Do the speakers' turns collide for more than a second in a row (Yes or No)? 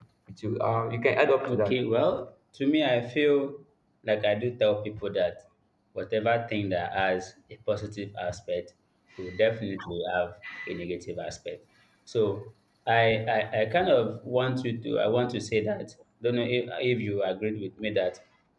No